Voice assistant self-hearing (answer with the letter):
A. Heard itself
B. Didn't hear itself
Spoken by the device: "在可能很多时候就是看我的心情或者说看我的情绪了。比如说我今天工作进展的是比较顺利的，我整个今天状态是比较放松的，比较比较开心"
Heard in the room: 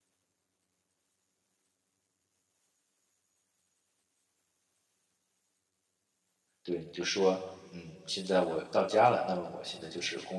B